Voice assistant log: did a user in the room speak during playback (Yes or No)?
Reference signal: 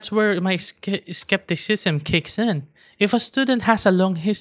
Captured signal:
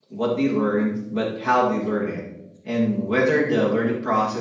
Yes